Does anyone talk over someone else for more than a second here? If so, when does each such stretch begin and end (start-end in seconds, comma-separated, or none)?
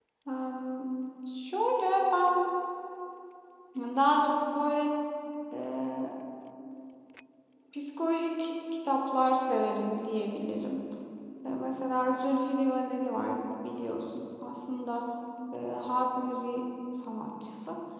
none